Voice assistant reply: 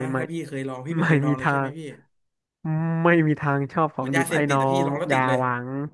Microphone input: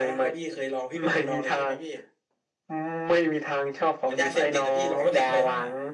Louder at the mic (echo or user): echo